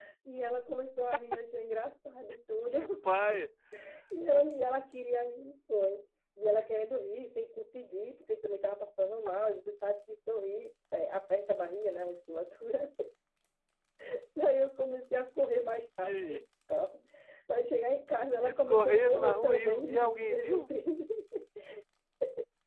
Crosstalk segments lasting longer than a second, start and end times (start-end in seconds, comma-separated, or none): 18.4-20.7